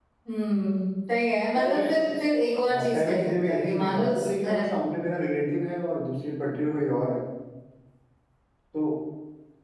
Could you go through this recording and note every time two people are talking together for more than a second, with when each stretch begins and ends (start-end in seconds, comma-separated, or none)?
2.7-4.0